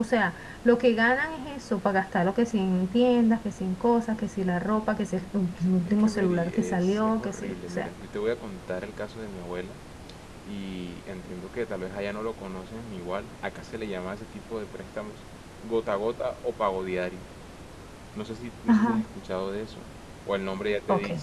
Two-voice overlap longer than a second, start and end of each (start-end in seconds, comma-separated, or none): 5.8-7.9